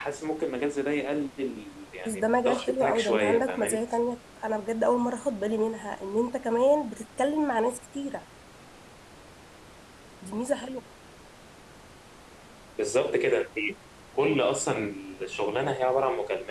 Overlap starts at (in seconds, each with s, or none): 2.0 s